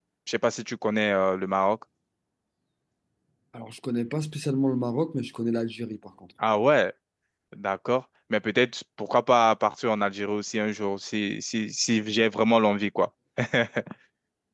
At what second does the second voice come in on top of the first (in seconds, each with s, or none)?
none